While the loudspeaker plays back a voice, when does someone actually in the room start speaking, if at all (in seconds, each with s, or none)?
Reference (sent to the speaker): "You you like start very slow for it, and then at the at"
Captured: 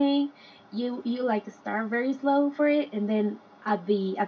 none